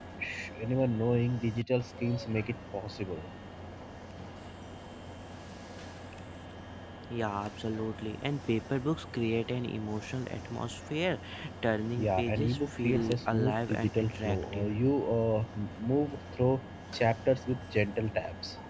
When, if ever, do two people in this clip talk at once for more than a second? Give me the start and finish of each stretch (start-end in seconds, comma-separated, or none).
12.0-14.7